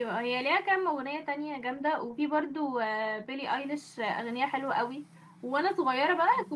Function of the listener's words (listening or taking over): listening